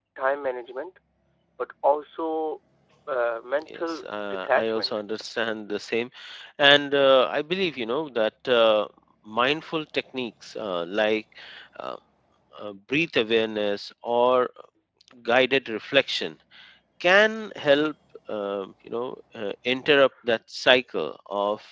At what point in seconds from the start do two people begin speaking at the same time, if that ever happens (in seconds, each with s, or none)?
3.7 s